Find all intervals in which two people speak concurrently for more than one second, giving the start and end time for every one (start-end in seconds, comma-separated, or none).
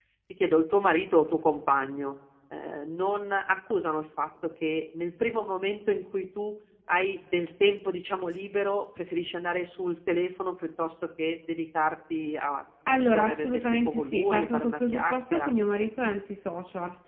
12.9-15.5